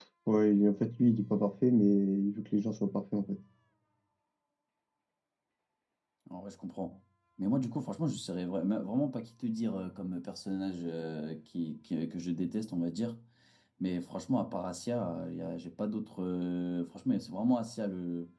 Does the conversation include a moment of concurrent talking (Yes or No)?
No